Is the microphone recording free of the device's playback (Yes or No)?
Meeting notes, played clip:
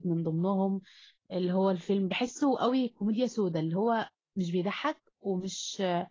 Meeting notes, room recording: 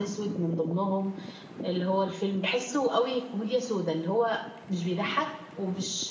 No